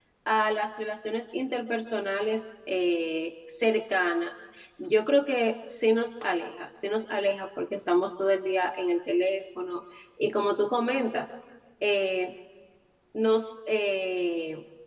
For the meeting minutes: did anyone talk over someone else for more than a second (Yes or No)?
No